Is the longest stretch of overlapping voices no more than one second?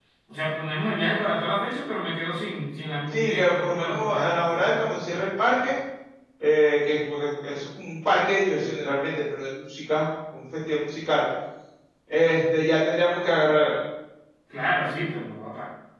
No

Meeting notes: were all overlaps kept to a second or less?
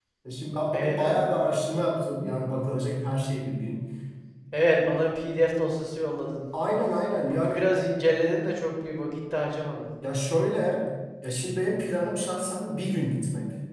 Yes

